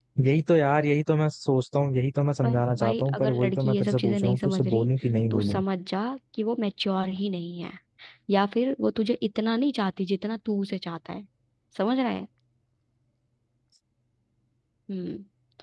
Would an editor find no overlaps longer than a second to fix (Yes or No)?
No